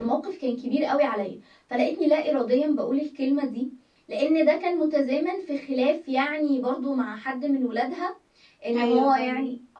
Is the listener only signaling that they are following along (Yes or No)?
Yes